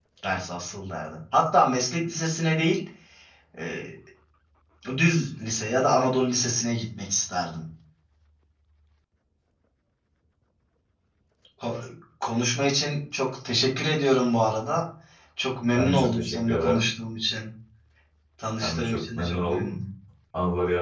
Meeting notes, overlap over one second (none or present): present